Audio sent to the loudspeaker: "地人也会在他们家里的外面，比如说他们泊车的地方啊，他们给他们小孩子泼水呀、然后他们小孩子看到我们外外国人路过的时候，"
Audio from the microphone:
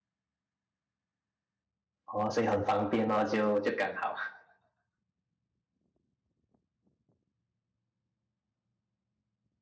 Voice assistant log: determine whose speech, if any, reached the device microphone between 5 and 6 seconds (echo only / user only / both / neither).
neither